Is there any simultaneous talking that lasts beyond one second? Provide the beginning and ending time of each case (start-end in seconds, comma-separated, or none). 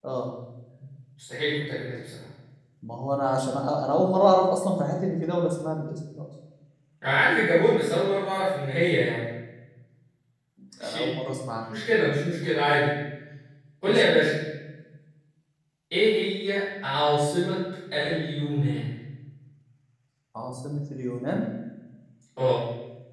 none